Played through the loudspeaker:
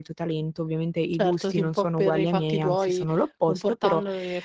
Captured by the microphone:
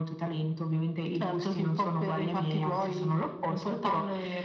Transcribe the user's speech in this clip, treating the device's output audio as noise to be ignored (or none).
none